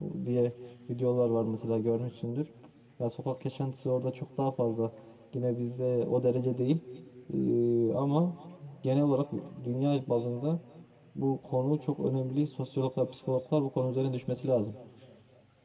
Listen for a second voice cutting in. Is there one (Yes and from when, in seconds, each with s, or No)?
No